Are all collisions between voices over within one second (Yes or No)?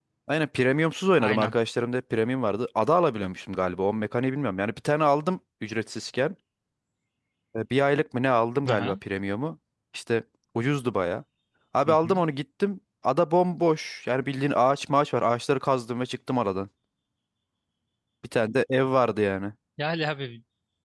Yes